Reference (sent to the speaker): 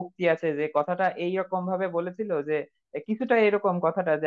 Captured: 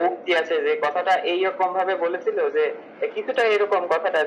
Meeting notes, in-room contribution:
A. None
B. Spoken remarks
A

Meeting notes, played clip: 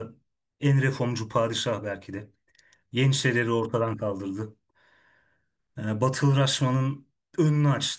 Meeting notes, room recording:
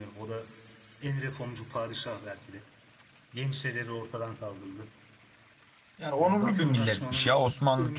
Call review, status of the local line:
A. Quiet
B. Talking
B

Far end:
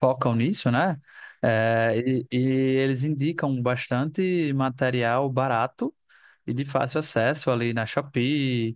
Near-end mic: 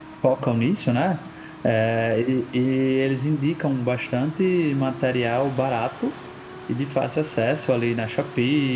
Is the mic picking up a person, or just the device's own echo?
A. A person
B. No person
B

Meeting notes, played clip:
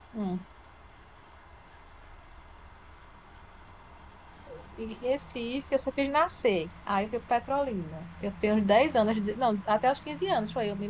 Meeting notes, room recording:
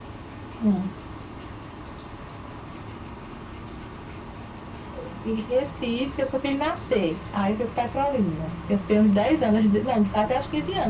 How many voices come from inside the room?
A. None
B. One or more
A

